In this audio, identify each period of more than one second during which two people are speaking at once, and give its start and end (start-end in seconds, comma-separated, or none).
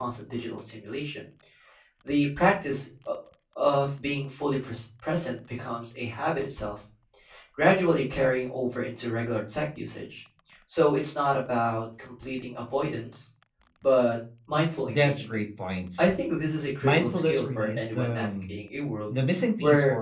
16.8-18.6